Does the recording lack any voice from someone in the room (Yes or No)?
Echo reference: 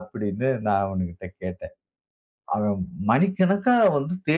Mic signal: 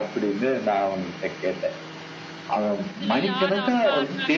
No